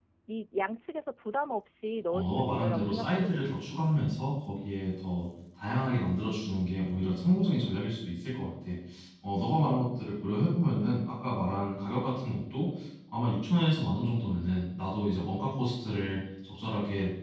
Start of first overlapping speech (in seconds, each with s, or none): 2.1 s